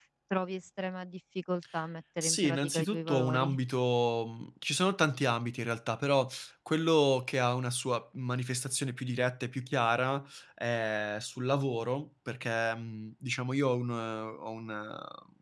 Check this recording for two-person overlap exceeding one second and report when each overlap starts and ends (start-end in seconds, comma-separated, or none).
2.2-3.5